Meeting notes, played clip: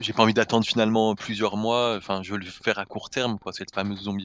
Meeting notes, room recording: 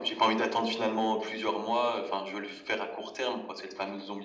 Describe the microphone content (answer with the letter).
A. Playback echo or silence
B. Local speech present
A